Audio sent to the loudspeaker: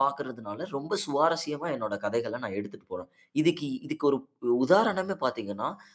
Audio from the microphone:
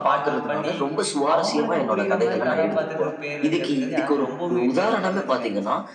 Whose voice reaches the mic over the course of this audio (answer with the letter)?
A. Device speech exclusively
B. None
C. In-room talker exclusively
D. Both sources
D